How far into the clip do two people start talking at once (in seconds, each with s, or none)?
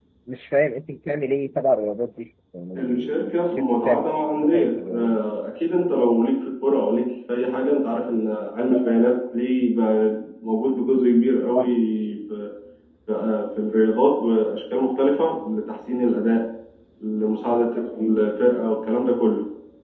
2.8 s